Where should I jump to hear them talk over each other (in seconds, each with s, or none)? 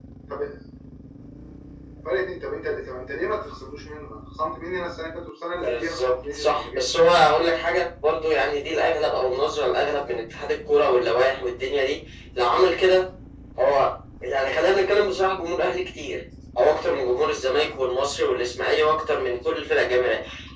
5.7 s